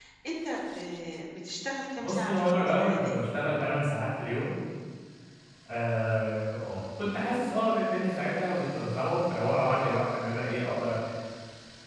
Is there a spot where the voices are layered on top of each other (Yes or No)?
Yes